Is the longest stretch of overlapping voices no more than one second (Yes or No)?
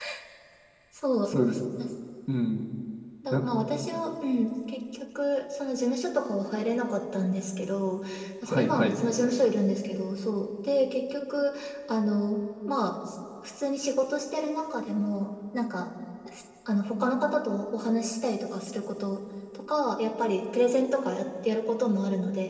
Yes